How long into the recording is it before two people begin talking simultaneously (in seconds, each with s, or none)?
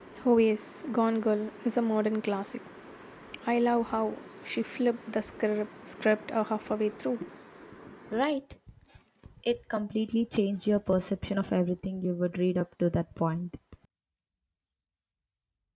none